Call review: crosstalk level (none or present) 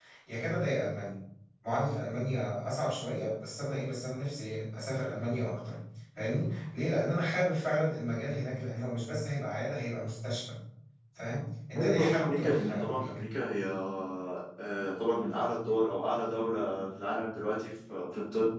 present